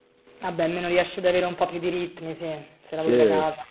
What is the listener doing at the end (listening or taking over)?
taking over